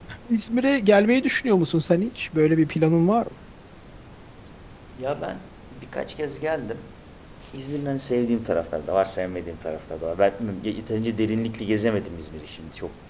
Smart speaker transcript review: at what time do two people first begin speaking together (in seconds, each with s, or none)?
none